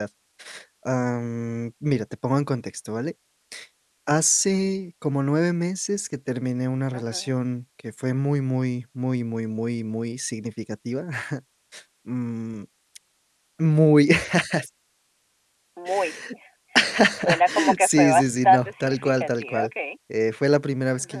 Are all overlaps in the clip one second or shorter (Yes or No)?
No